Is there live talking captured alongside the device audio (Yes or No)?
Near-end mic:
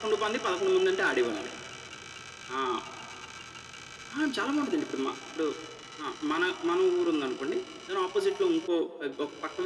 No